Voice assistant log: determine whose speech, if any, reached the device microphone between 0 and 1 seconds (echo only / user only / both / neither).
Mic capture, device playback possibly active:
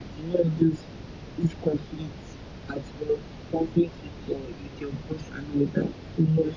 echo only